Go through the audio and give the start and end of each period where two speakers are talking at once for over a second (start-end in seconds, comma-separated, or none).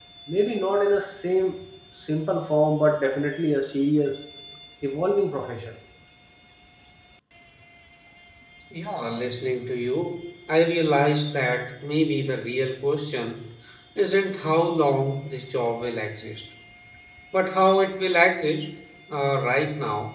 none